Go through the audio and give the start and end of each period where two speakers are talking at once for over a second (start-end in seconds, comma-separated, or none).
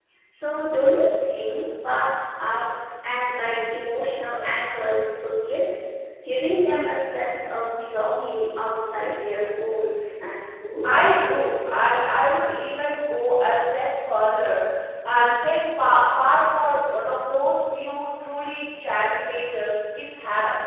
none